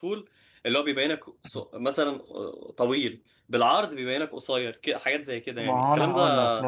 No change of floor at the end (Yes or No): No